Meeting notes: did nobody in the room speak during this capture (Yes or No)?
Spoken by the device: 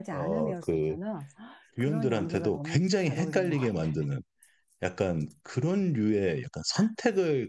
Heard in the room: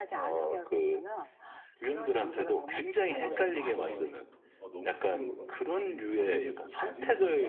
No